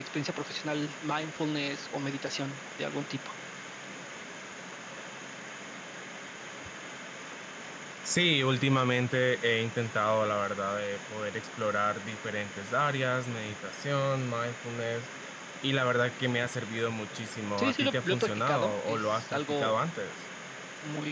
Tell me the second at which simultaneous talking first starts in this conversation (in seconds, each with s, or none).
17.6 s